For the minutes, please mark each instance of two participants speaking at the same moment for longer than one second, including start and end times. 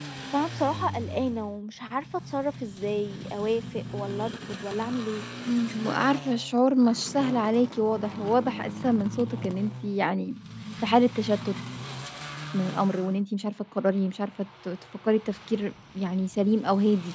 none

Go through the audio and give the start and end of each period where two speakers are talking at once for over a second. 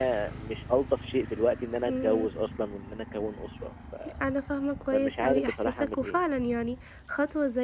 4.9-6.2

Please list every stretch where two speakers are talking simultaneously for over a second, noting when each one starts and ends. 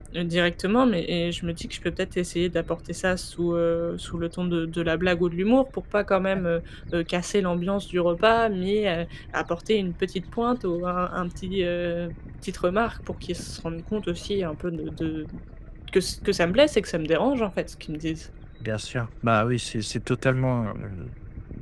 none

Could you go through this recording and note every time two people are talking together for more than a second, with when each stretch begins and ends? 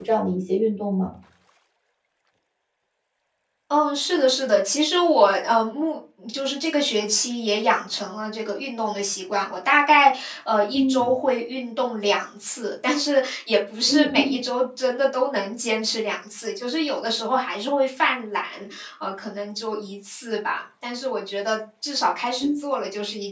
none

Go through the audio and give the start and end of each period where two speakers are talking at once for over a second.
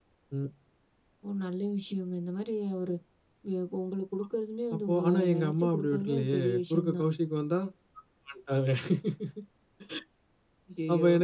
4.9-7.0

